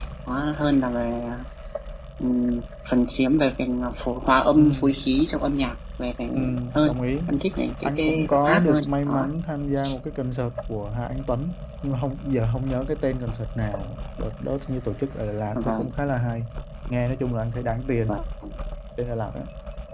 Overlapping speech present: Yes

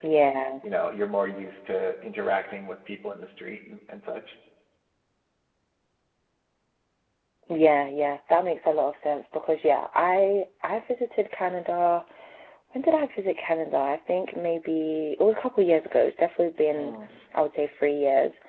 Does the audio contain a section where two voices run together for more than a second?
No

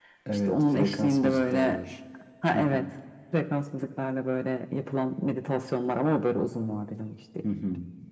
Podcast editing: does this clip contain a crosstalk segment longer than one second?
Yes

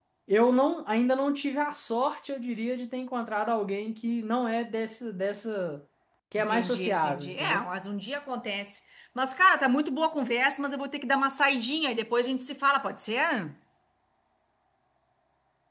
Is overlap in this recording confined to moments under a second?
No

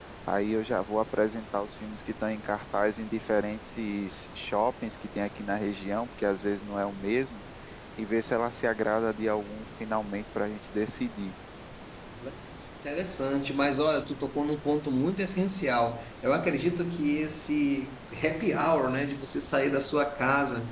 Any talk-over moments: No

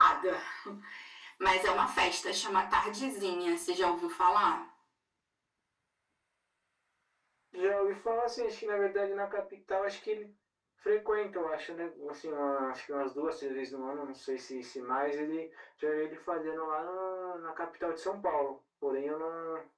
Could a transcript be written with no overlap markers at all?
Yes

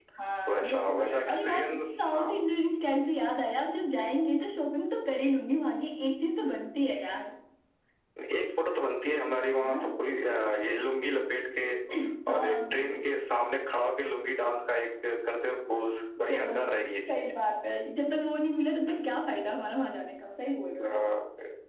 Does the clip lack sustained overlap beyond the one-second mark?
No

